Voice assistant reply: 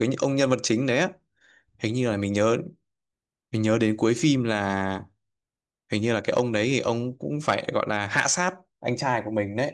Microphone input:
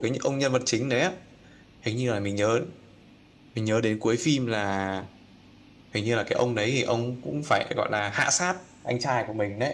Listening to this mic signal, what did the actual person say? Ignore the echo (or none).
none